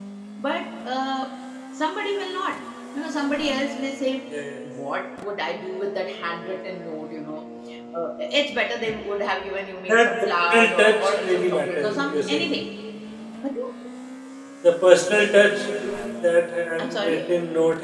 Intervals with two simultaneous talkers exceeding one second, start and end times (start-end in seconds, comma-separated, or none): 9.9-12.5